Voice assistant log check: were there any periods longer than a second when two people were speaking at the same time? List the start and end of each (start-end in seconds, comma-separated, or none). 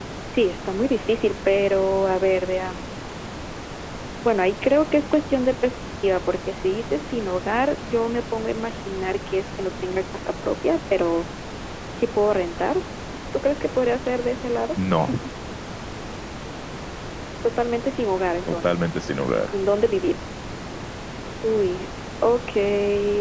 none